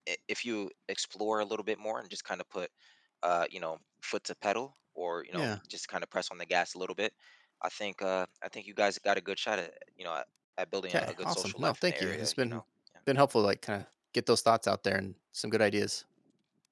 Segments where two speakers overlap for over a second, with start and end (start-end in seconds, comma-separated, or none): 10.9-12.6